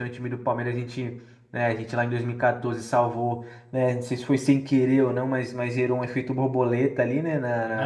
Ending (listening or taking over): taking over